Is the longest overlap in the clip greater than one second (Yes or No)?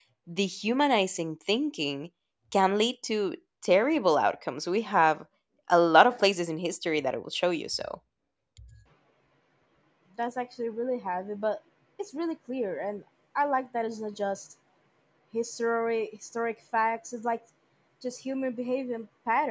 No